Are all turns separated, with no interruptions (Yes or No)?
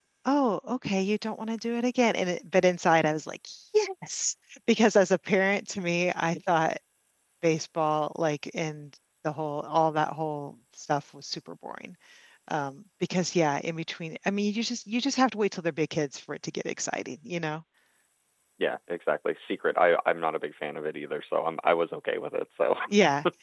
Yes